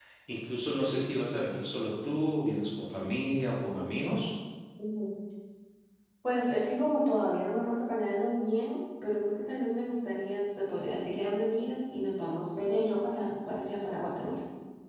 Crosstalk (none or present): none